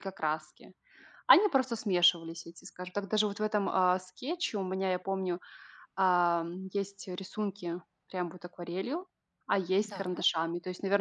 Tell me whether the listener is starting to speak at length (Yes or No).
No